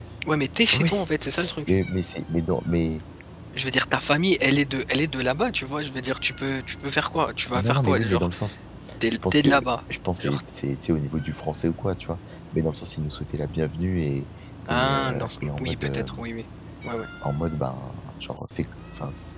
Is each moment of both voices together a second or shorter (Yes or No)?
No